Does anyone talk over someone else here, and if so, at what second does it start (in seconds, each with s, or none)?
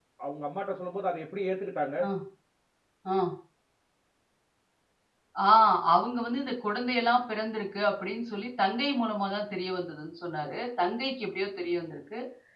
none